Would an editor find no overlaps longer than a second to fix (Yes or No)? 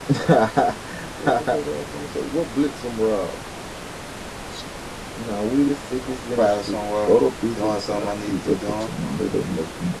No